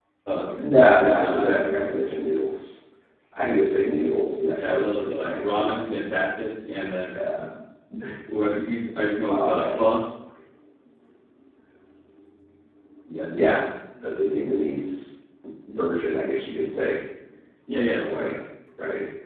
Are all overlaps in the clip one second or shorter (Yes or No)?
No